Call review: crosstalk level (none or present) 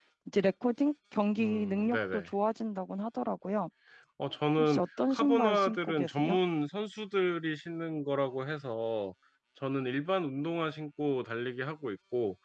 present